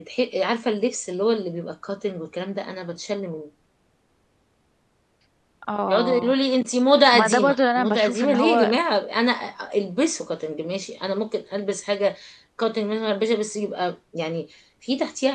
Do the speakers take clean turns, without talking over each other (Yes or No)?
No